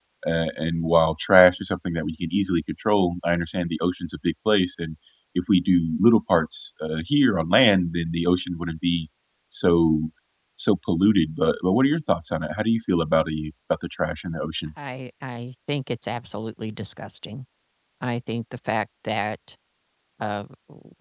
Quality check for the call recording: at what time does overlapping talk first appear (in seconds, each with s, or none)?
none